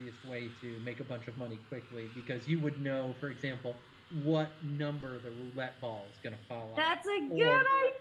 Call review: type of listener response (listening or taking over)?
taking over